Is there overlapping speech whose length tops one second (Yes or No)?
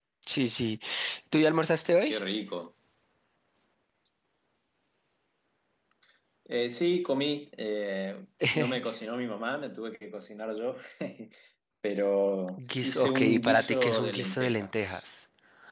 Yes